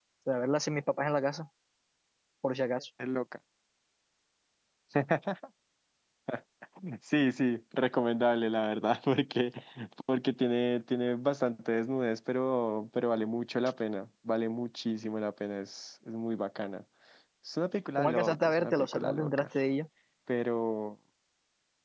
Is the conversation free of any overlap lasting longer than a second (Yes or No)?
No